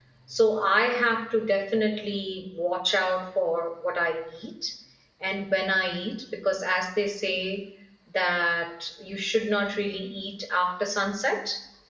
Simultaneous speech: No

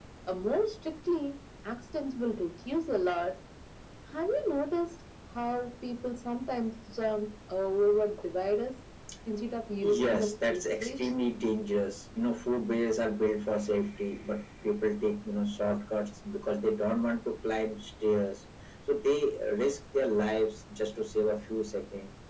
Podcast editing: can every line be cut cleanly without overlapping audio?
No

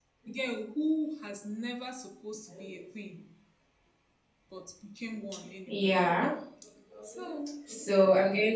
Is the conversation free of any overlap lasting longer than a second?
Yes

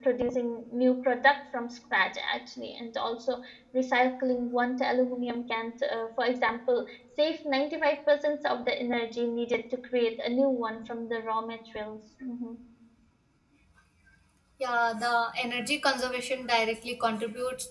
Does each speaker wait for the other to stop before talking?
Yes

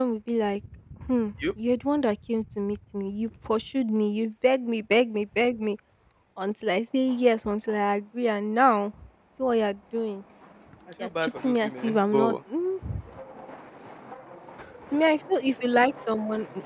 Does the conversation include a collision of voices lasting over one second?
Yes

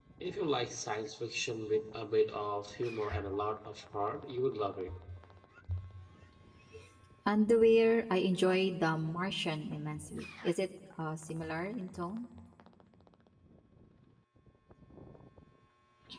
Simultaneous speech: No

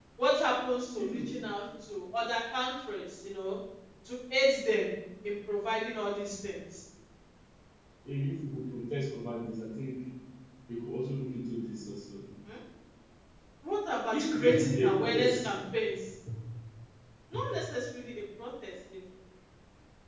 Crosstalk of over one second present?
Yes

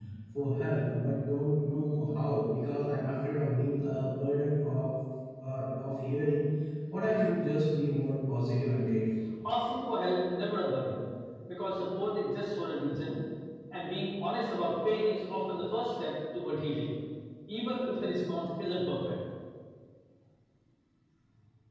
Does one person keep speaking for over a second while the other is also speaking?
No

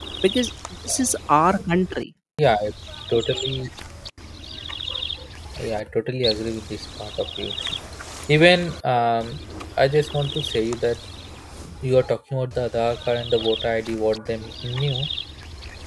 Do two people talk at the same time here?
No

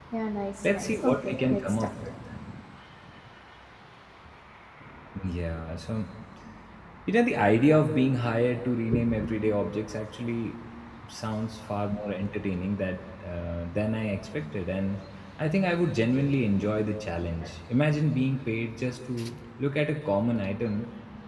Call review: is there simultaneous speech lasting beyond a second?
Yes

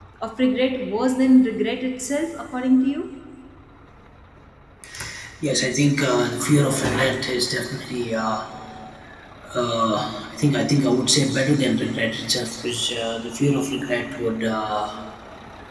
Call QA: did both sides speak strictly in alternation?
Yes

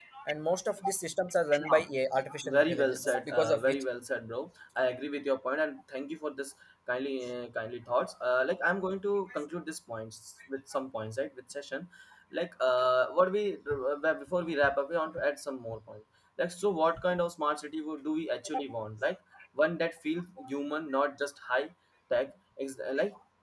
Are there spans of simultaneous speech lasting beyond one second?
Yes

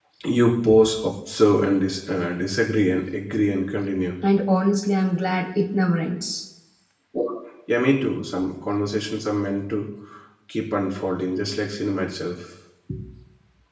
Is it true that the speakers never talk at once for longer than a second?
Yes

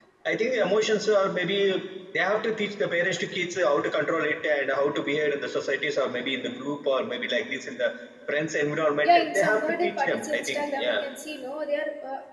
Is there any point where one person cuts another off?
Yes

